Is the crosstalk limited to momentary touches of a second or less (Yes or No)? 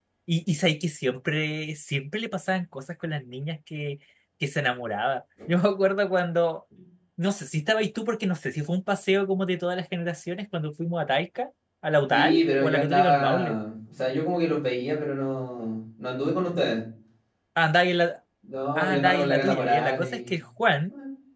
No